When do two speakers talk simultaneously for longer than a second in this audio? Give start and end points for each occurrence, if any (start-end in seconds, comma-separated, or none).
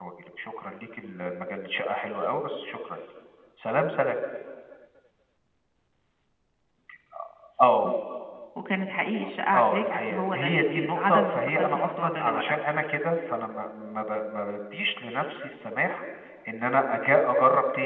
9.5-12.6